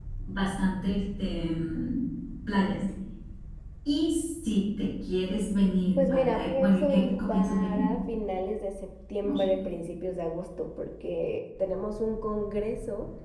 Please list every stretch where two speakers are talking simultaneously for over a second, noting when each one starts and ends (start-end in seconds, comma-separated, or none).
6.0-7.8